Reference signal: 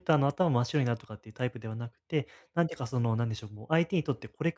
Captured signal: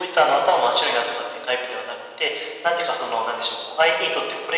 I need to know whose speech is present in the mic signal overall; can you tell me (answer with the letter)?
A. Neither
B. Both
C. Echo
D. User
C